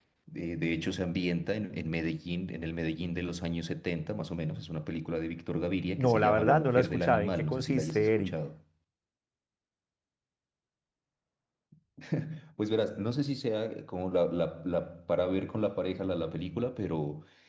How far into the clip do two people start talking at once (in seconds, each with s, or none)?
6.0 s